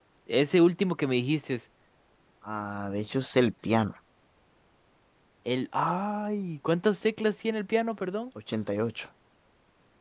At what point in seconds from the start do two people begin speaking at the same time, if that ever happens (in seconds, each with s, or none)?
none